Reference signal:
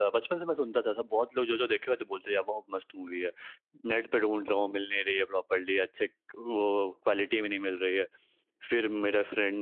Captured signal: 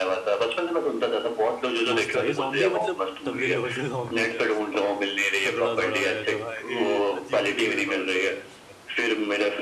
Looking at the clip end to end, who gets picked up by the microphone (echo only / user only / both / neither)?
both